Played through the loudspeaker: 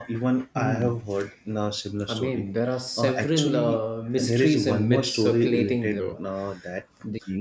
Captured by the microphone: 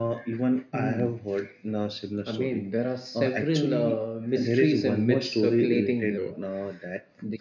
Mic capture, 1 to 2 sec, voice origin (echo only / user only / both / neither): echo only